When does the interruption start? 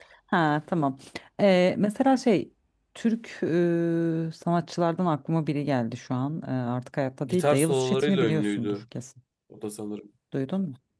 7.3 s

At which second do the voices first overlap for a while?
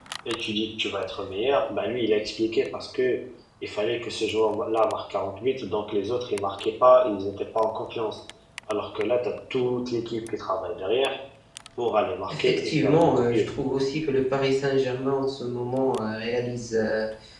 12.3 s

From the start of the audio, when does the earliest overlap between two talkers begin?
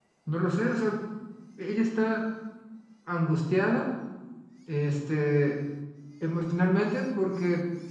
none

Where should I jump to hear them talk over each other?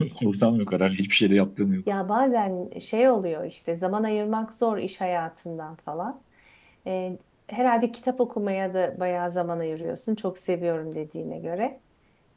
none

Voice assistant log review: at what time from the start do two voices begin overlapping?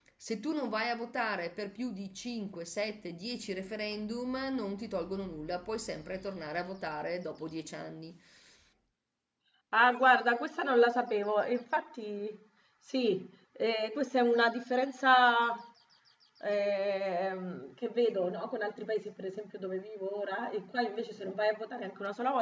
none

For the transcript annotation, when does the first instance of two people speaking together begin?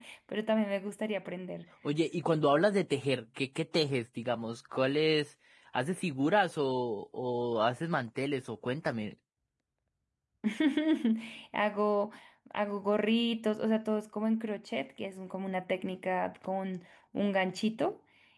none

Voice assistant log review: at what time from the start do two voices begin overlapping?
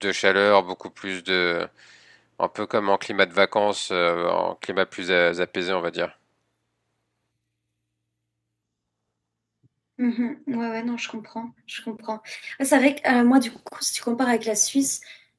none

